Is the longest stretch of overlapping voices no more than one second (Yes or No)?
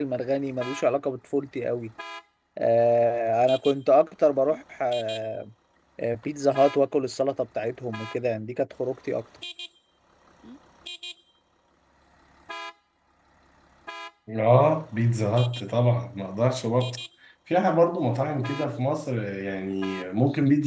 Yes